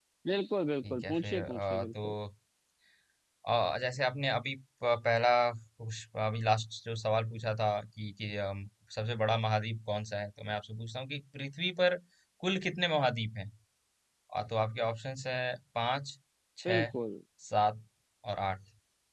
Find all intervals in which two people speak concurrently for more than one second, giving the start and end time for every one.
0.9-2.1

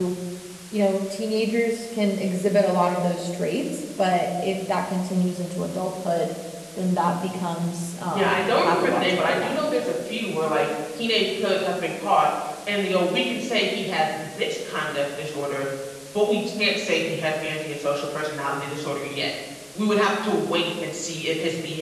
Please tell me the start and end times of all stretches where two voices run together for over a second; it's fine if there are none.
8.1-9.6

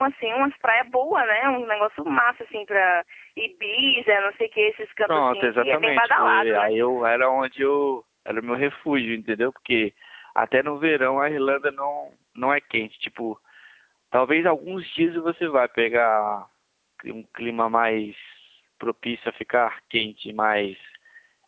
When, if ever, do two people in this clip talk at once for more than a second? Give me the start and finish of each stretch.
5.1-6.7

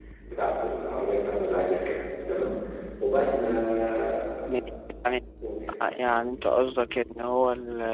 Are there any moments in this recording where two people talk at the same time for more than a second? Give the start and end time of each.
none

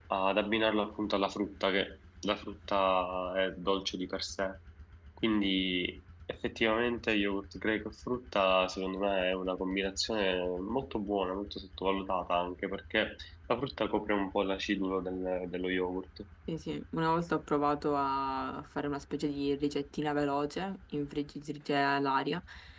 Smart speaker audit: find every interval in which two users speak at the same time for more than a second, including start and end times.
none

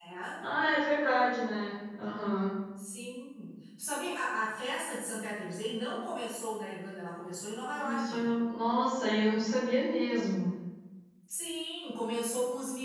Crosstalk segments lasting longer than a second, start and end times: none

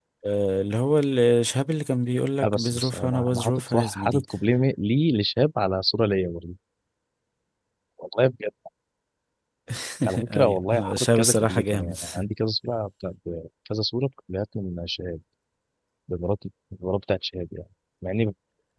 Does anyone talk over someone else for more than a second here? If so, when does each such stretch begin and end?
2.4-4.2, 10.3-11.9

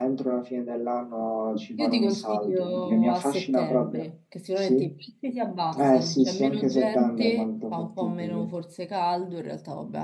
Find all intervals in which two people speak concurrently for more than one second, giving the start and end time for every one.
1.8-4.0, 5.8-8.4

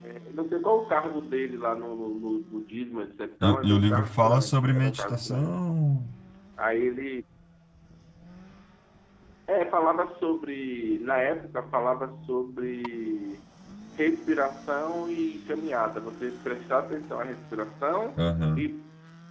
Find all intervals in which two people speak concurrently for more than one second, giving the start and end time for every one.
3.4-5.5

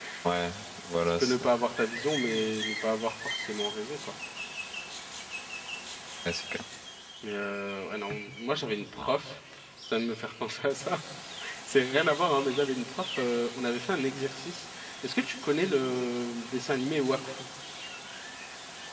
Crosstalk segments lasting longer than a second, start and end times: none

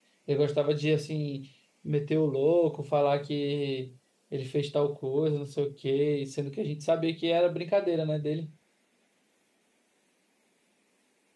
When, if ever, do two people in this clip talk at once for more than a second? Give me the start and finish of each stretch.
none

